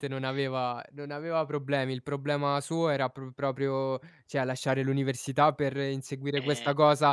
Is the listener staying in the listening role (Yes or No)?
Yes